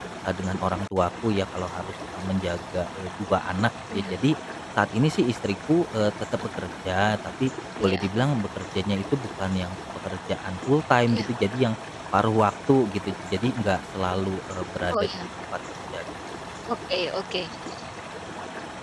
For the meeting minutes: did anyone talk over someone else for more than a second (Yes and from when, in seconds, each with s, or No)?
No